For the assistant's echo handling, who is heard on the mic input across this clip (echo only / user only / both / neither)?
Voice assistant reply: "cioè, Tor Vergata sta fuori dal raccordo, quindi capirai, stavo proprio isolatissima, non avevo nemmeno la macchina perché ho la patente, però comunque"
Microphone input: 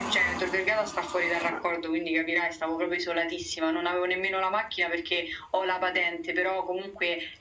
echo only